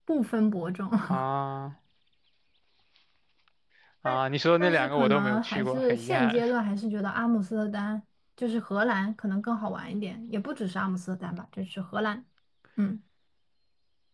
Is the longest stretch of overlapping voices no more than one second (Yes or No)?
No